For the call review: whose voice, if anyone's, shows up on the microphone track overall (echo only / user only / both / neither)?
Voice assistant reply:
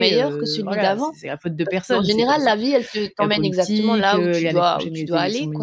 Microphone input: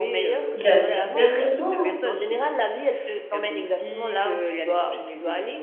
both